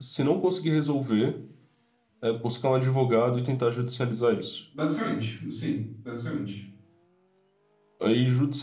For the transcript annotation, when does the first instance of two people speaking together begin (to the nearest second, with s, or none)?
none